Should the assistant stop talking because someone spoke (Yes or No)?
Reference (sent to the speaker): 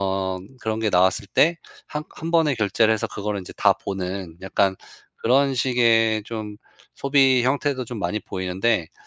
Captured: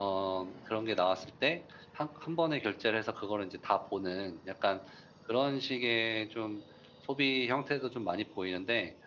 No